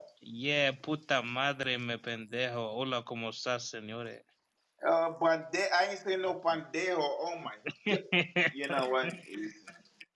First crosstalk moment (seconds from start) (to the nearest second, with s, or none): none